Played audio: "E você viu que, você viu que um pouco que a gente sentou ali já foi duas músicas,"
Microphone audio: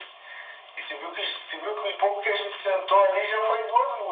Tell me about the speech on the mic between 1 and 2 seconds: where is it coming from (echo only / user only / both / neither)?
echo only